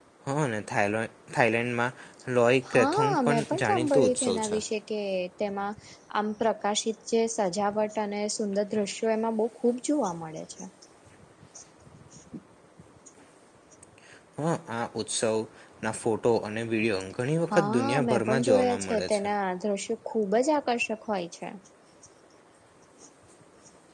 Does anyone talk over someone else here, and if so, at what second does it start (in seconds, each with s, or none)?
2.7 s